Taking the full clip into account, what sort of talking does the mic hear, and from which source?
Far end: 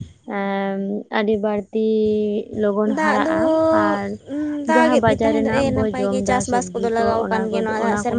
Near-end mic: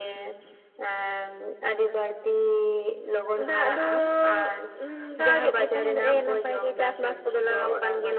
echo only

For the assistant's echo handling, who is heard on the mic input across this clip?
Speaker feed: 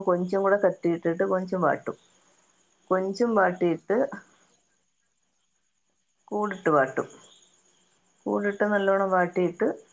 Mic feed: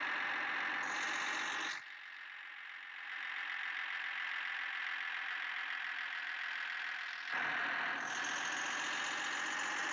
neither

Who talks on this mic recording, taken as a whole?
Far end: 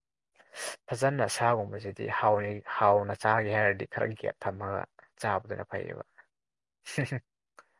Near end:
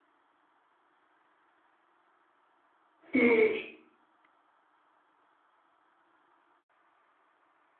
user only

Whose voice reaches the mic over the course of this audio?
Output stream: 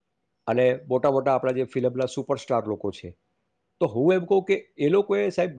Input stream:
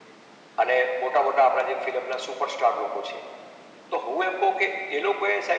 echo only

